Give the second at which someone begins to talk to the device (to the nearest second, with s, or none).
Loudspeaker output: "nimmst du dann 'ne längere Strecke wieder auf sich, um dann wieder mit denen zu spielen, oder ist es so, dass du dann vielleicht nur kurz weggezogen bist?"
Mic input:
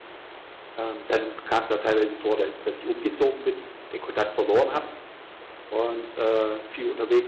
1 s